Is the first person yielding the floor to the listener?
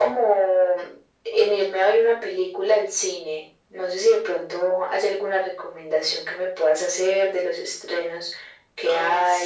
Yes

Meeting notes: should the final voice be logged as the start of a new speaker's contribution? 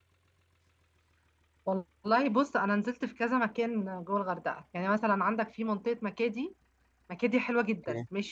No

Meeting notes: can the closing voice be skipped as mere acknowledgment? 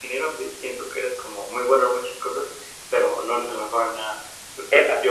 Yes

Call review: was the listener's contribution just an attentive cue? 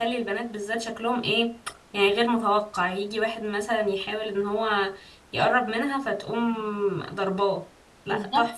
No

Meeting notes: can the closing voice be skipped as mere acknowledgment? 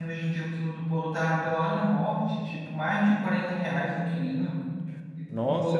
No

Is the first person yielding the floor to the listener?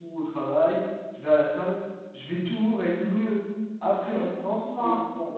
Yes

